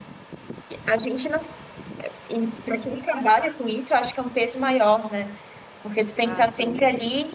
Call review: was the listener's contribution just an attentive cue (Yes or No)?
Yes